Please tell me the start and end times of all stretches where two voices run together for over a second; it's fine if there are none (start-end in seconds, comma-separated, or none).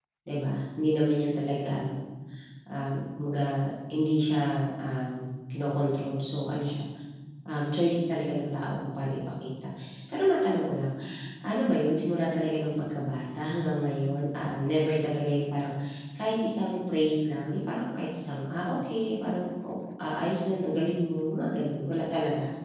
none